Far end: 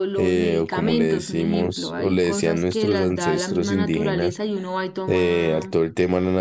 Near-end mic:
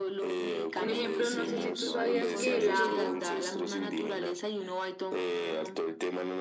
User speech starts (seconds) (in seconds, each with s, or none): 0.7 s